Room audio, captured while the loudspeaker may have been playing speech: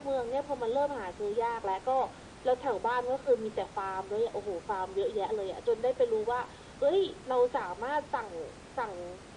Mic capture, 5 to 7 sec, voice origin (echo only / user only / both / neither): echo only